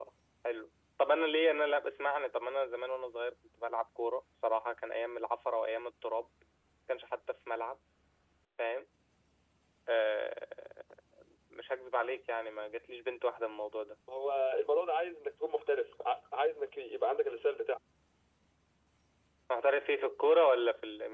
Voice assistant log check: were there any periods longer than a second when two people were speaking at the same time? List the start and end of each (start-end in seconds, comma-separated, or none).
none